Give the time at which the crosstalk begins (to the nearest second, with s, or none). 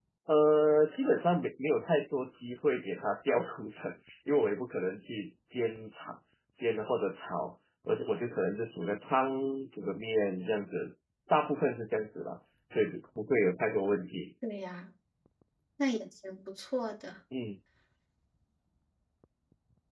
none